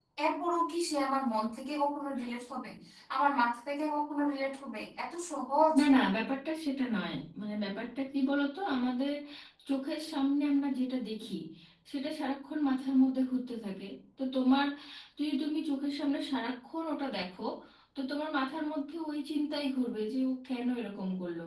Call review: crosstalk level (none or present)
none